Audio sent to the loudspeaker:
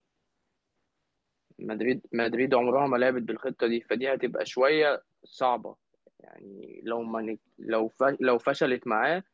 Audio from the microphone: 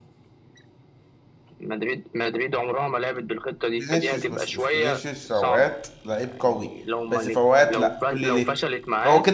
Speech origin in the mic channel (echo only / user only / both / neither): both